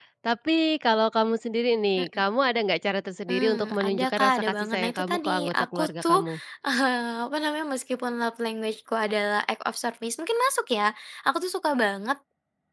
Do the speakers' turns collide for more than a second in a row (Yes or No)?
Yes